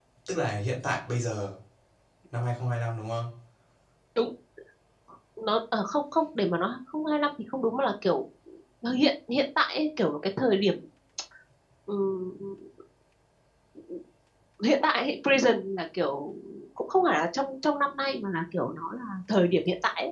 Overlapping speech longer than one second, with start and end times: none

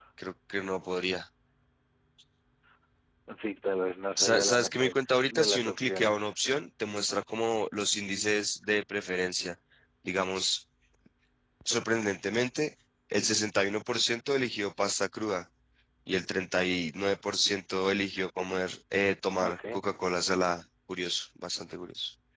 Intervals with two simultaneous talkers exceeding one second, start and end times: 4.2-6.2

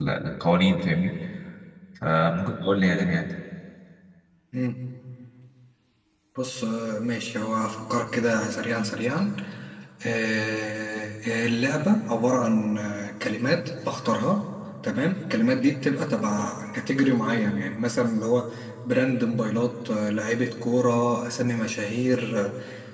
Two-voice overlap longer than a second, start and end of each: none

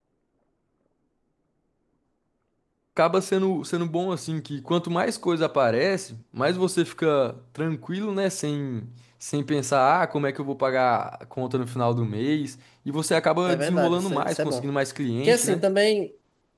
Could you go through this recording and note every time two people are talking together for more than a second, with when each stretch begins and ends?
13.5-14.7

